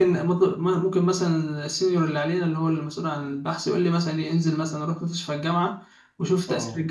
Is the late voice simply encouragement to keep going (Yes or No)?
Yes